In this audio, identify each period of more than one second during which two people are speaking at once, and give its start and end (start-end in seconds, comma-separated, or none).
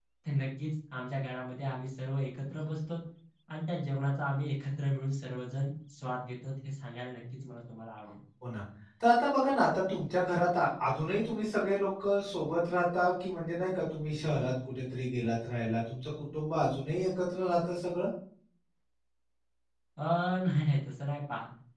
none